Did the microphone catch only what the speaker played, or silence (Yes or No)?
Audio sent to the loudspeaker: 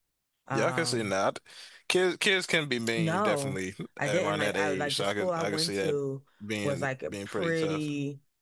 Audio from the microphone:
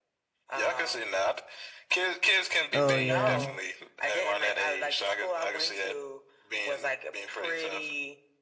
No